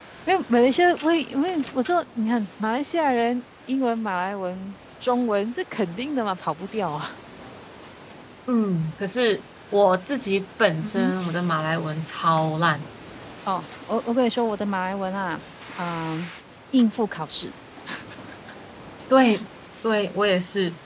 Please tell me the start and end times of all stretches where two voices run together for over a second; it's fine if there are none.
none

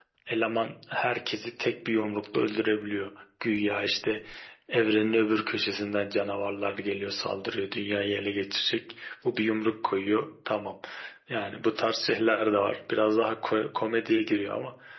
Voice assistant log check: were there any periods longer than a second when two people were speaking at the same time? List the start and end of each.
none

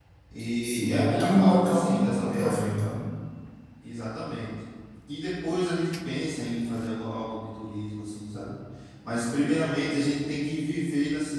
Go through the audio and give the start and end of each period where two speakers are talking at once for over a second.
0.6-2.7

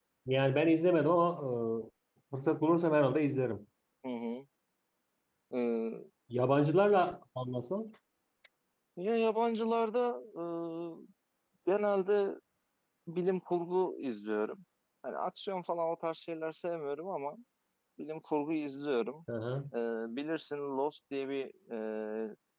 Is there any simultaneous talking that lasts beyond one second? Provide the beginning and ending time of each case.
none

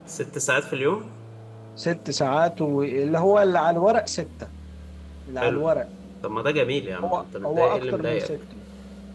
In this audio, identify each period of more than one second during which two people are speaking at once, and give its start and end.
7.0-8.3

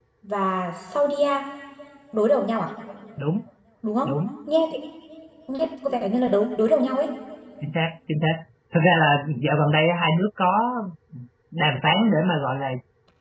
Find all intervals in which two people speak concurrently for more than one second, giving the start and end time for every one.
none

